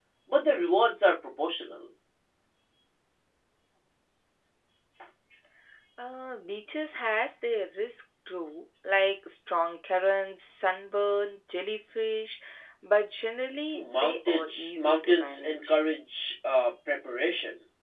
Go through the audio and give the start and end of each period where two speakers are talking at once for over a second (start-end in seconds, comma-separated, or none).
13.8-15.7